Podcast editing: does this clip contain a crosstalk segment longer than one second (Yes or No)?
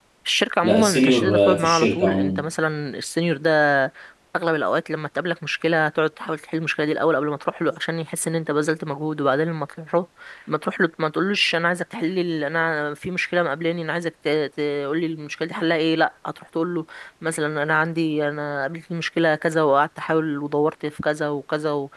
Yes